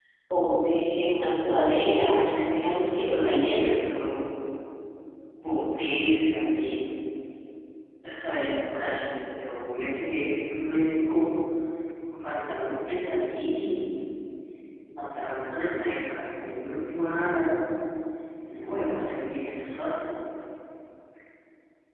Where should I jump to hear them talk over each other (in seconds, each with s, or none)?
2.1 s